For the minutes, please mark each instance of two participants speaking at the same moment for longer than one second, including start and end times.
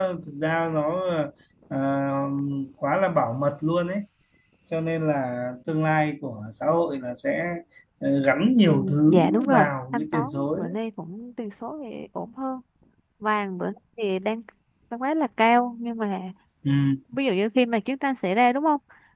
8.7-10.8

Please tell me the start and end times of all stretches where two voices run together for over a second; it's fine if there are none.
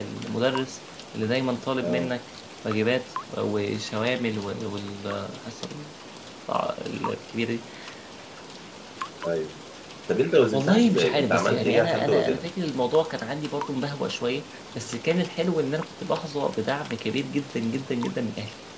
10.5-12.5

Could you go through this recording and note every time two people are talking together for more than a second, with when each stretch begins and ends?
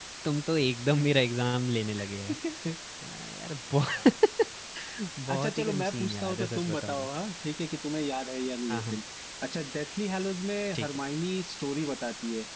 5.3-7.1

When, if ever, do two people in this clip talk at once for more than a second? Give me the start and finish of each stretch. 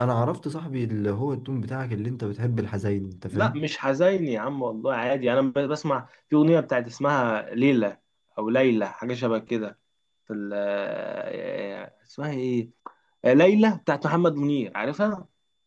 none

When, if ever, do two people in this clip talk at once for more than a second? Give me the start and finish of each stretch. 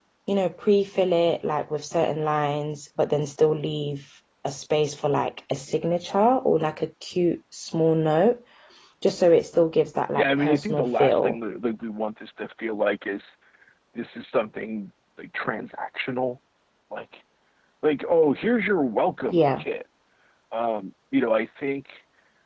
10.2-11.4

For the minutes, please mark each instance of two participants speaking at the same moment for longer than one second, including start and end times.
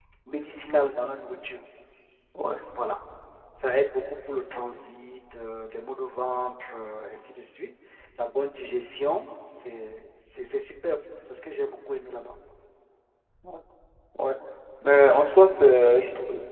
none

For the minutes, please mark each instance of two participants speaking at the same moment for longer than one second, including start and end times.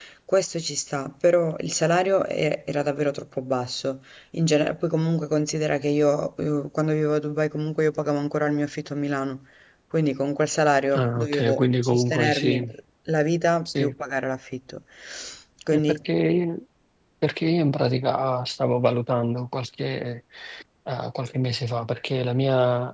10.9-12.7

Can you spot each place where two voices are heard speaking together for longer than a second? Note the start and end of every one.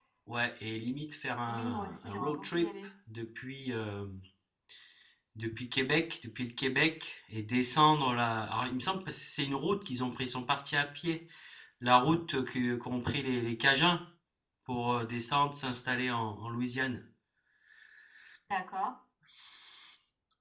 1.5-2.7

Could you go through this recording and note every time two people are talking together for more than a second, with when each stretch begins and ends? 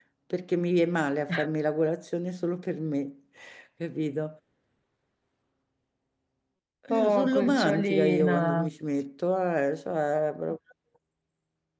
6.9-8.7

